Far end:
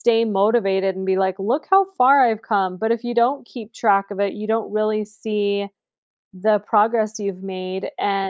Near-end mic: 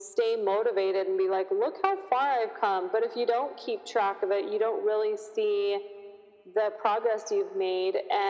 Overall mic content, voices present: echo only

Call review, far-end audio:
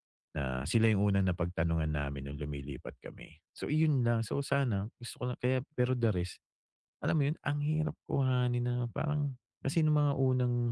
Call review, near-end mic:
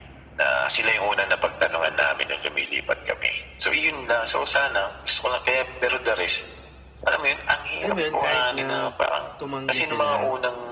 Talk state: both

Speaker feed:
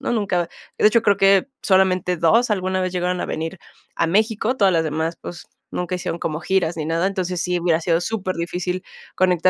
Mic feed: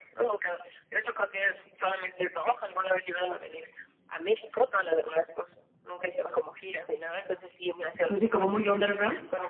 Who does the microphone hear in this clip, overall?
both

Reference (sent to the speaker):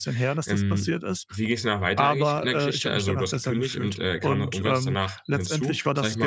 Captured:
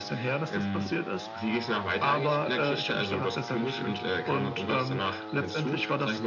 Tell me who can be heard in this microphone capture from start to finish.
echo only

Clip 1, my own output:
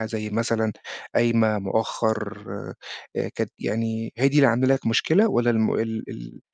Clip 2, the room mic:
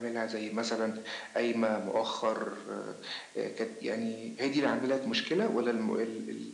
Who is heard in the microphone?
echo only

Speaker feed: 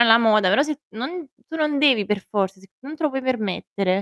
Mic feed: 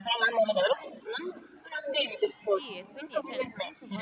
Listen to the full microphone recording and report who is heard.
both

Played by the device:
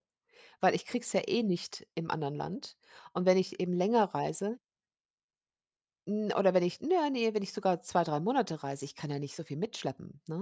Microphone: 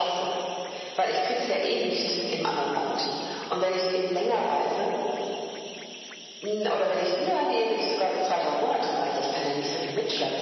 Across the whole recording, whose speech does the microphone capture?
echo only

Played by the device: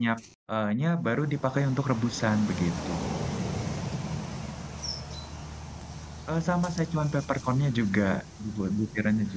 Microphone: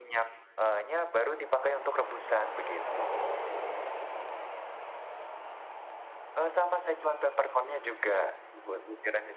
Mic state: echo only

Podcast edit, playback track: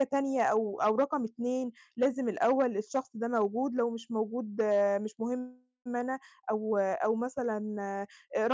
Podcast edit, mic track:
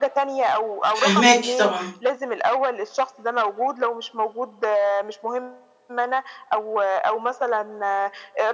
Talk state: both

